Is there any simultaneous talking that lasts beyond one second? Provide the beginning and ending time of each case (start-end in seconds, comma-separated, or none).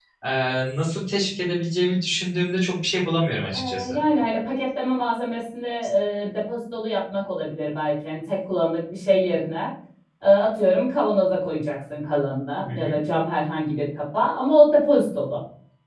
none